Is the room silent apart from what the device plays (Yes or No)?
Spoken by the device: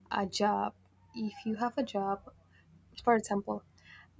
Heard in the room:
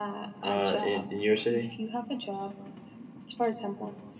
No